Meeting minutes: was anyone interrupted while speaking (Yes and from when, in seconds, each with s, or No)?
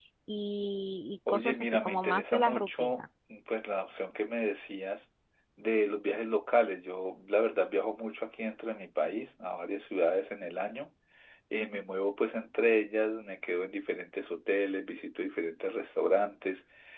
Yes, from 1.3 s